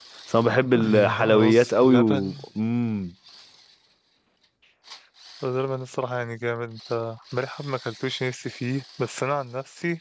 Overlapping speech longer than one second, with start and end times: 0.8-2.2

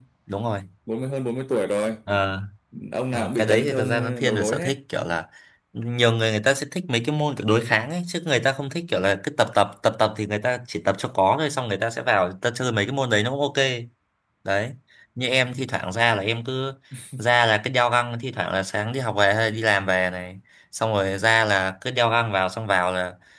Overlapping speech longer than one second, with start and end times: 3.1-4.7

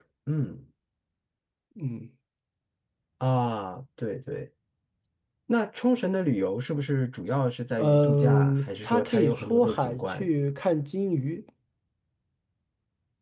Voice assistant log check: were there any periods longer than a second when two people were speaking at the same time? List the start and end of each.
7.8-10.3

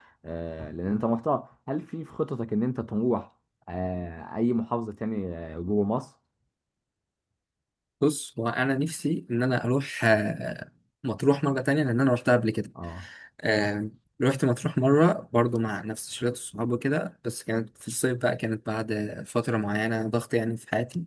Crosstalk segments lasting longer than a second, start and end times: none

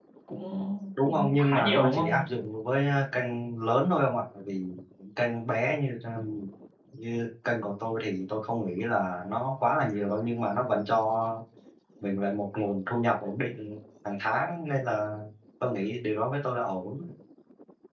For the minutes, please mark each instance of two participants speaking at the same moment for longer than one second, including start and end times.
1.0-2.3

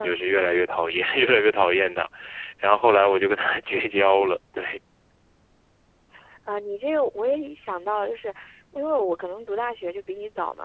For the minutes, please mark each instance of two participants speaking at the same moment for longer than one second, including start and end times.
none

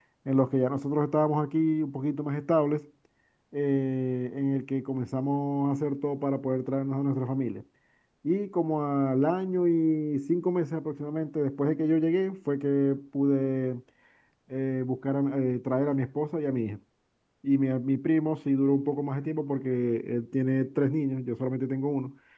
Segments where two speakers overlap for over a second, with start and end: none

